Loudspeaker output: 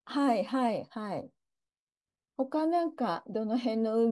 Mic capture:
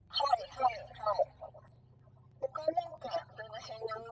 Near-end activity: none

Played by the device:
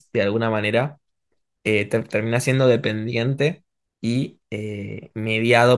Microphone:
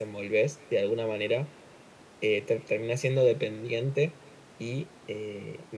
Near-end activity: none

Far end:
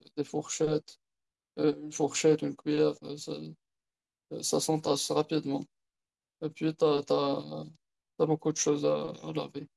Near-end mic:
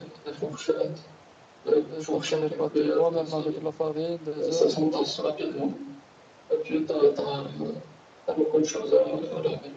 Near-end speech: present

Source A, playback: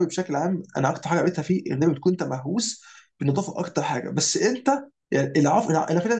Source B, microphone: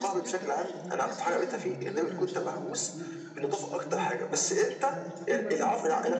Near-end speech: present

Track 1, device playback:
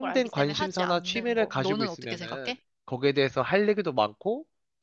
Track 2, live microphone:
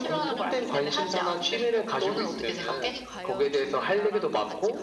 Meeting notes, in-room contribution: present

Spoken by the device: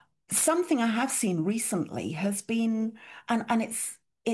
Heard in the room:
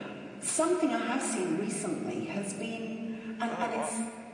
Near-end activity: present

